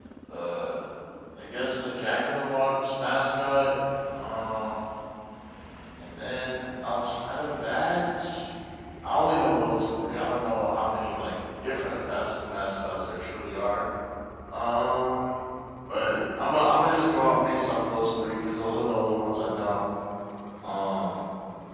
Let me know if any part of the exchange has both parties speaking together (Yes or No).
No